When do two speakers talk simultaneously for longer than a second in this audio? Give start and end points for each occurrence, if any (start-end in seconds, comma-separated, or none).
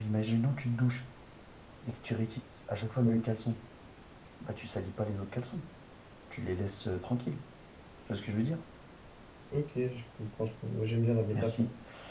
none